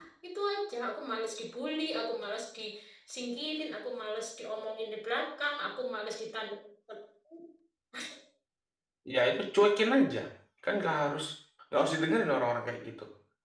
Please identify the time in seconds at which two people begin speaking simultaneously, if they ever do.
none

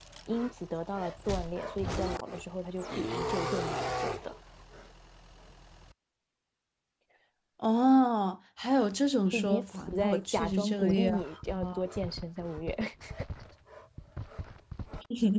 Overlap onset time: 9.2 s

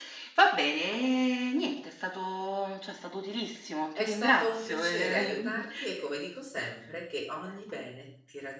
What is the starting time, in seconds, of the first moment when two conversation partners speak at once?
4.0 s

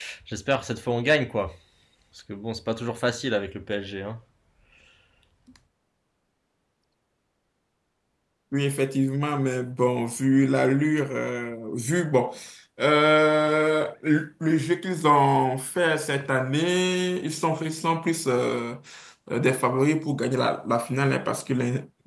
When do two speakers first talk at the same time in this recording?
none

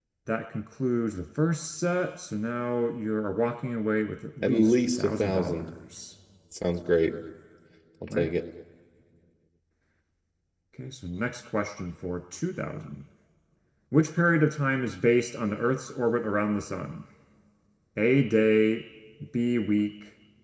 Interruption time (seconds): 4.4 s

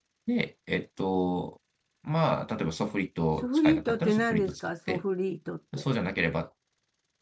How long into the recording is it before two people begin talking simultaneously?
3.4 s

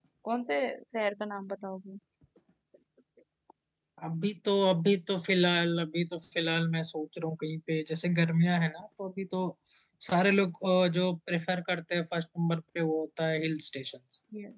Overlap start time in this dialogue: none

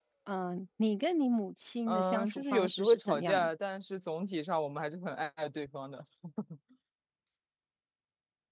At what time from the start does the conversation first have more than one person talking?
1.9 s

